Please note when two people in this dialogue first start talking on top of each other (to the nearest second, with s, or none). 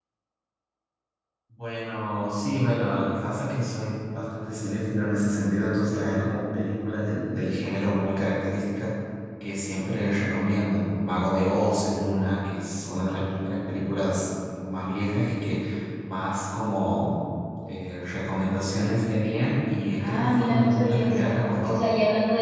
20 s